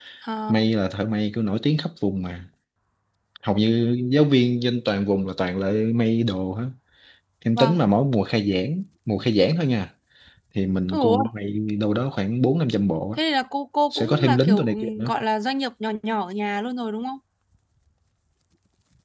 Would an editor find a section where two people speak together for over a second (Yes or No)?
Yes